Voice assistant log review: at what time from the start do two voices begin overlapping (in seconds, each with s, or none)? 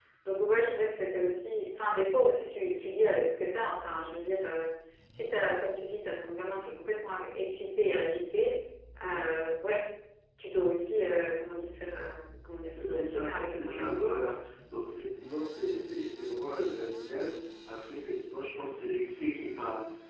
12.7 s